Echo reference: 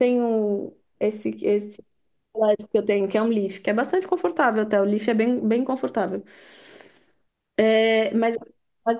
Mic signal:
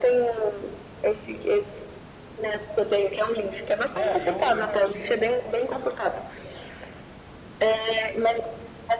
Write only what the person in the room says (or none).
É, eu, eu já tive,